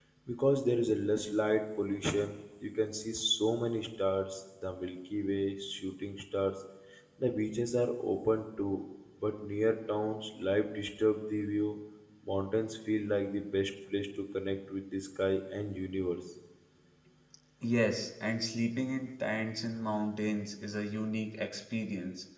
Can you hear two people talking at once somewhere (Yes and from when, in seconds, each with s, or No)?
No